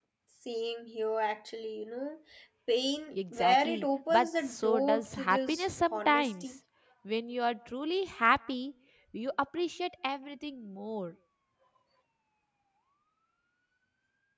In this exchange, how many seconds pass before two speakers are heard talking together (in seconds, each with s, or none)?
3.1 s